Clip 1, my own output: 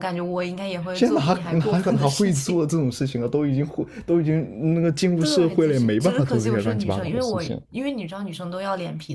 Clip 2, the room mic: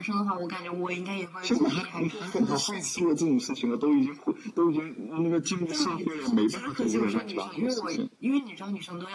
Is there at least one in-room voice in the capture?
No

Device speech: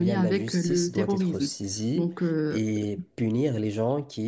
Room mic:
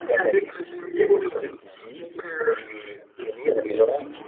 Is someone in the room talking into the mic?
No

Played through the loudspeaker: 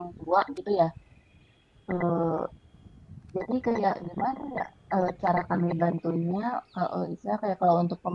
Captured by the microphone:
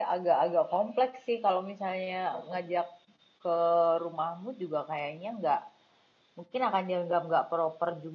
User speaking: Yes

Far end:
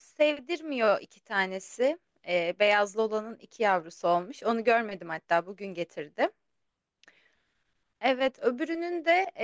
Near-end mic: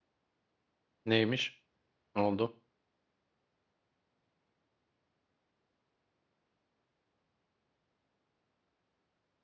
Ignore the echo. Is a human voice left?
Yes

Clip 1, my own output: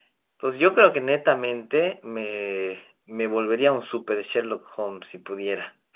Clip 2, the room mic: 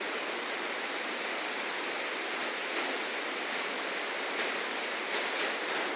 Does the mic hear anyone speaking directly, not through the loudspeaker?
No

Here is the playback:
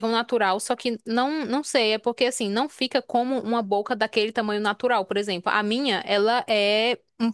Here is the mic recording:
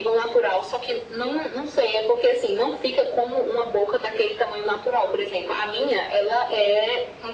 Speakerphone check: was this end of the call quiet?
Yes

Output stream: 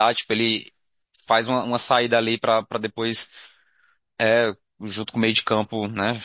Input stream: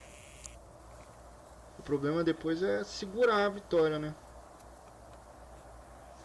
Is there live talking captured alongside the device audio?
Yes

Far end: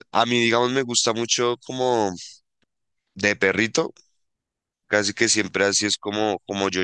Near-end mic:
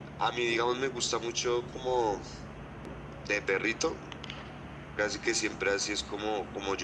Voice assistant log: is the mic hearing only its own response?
Yes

